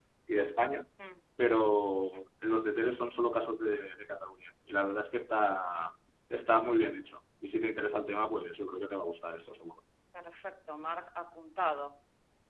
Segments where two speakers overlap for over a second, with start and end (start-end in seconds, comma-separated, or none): none